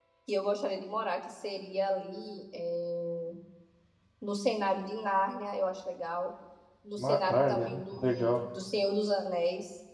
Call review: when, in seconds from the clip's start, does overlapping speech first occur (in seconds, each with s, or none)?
7.0 s